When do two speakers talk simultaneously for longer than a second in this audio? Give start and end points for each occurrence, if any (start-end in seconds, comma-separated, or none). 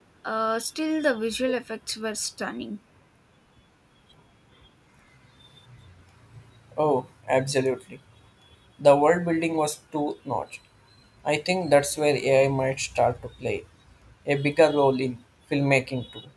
none